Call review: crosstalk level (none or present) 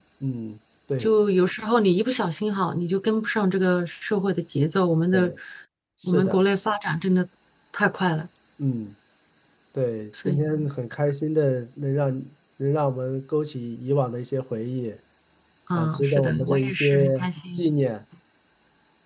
present